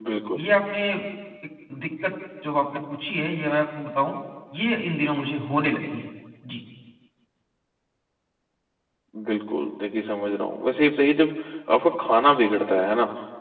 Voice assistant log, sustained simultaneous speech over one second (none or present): none